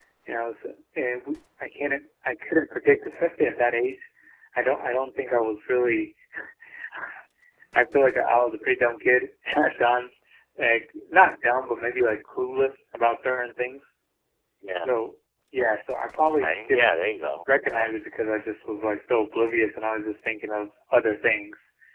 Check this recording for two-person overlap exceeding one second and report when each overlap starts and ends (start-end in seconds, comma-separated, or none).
none